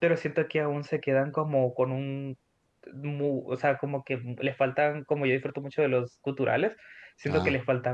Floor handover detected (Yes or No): No